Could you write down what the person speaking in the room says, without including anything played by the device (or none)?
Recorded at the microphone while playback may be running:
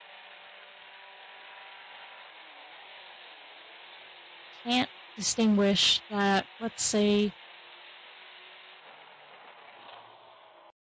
can't distinguish that, let's say,